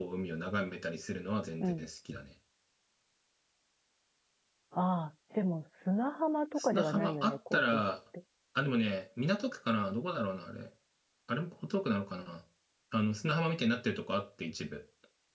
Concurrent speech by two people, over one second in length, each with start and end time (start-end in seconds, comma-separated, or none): 6.6-7.8